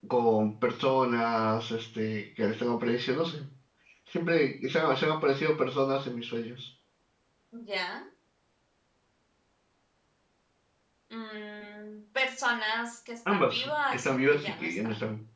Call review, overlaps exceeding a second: present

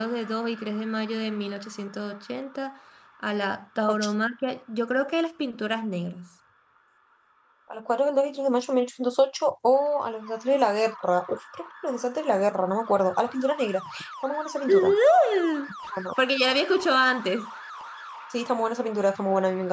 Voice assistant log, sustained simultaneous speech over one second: none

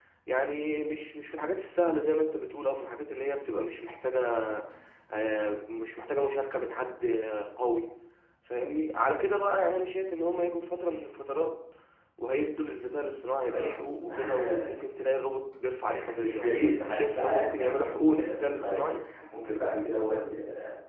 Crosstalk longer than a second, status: present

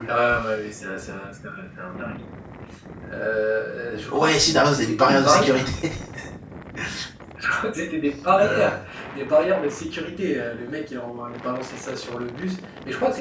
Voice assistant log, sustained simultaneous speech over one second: present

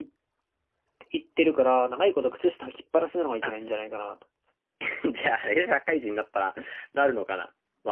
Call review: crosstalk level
none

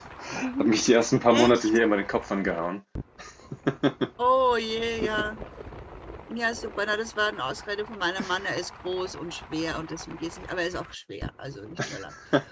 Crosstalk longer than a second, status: none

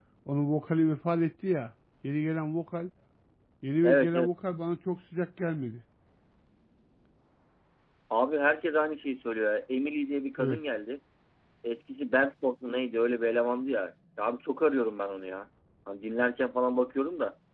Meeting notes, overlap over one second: none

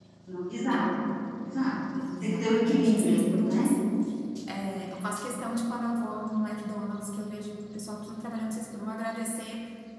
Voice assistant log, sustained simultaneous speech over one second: present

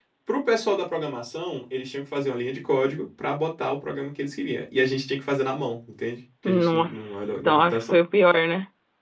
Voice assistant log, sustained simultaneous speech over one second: present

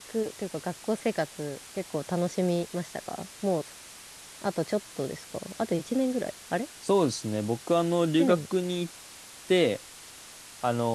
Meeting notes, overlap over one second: none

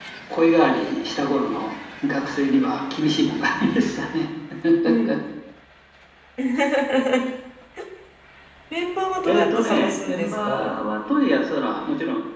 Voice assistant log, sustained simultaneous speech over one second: present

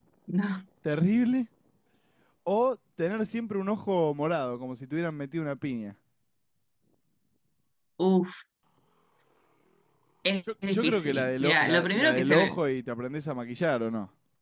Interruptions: present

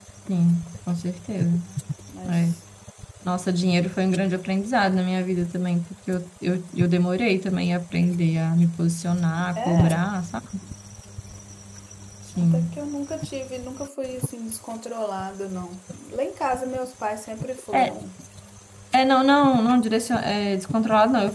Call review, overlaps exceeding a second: none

